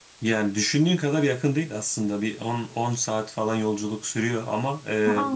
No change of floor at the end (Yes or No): Yes